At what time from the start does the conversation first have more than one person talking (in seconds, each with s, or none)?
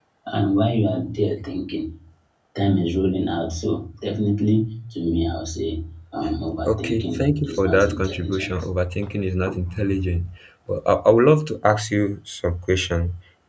6.6 s